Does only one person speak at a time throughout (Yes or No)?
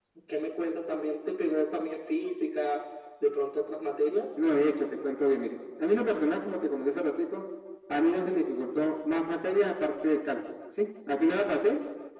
Yes